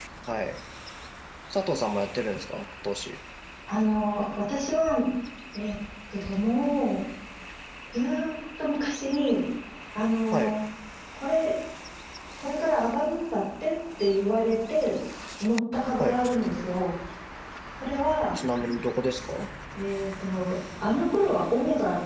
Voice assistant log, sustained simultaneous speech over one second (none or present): none